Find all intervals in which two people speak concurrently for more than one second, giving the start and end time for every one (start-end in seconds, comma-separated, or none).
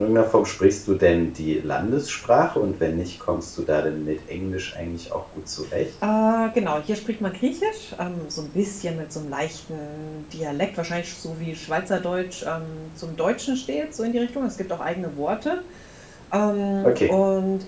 none